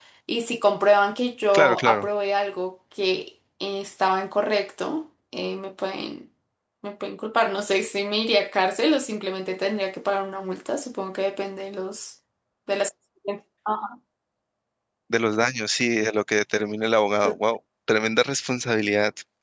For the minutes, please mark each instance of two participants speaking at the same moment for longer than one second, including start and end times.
none

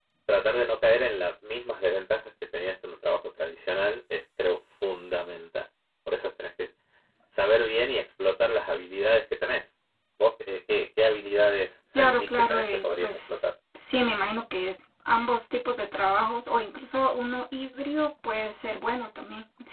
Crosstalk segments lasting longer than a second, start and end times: 11.9-13.5

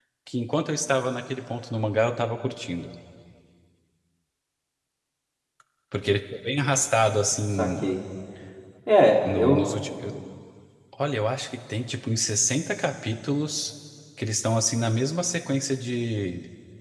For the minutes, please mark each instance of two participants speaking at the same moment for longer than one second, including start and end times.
none

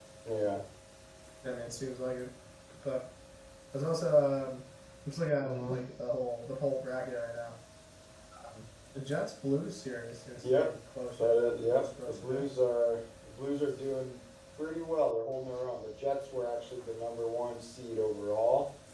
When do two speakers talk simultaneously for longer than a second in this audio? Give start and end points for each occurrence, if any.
11.2-12.4

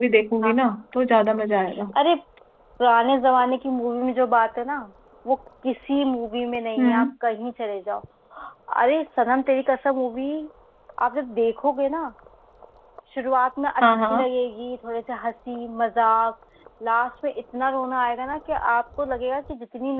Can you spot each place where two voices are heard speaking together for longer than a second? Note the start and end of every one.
none

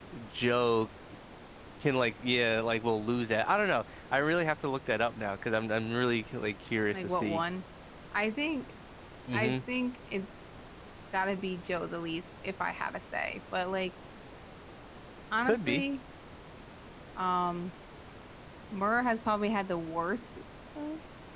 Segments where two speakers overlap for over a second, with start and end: none

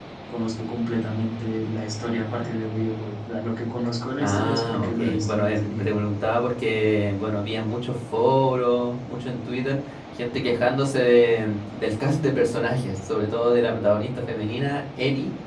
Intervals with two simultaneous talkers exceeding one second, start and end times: 4.2-5.8

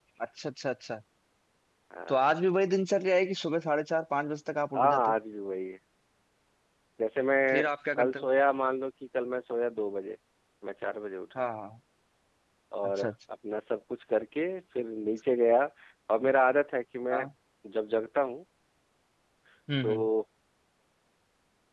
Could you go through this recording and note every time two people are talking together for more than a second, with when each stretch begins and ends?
none

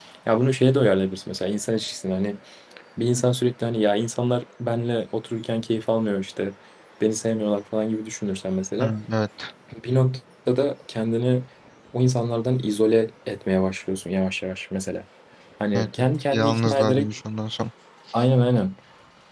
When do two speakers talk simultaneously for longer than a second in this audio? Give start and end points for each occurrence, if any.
15.7-17.1

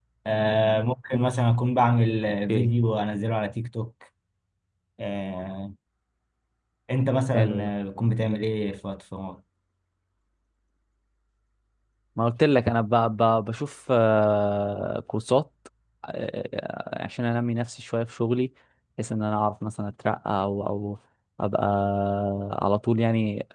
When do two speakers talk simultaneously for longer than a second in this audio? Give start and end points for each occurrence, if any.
none

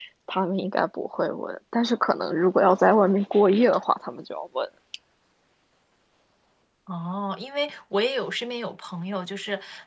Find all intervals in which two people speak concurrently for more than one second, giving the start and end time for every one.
none

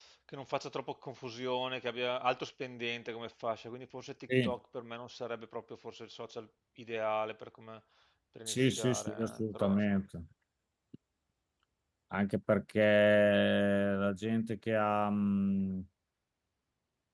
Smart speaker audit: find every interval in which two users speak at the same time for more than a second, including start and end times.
8.5-10.0

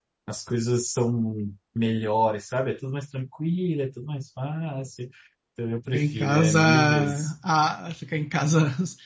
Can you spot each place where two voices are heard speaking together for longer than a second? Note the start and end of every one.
5.9-7.3

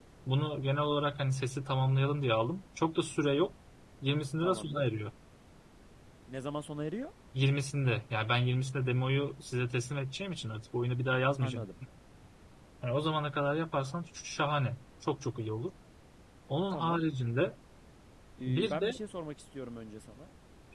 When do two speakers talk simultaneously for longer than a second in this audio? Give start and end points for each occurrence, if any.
none

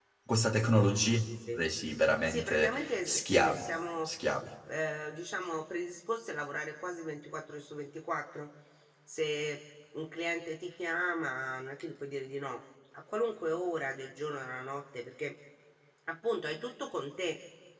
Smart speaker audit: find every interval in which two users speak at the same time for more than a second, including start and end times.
2.2-3.6

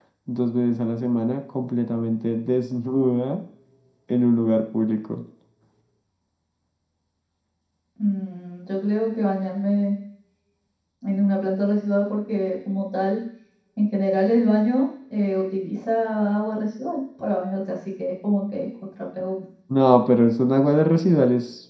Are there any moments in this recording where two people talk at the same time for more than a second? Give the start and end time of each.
none

